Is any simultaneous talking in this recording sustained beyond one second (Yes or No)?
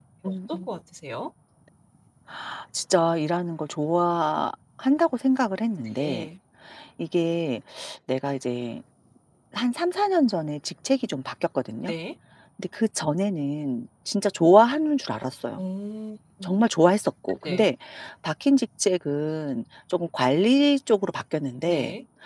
No